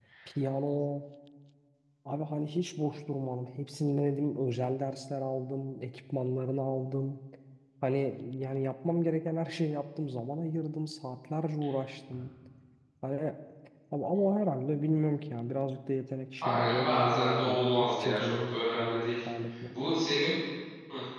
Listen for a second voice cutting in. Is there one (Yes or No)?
Yes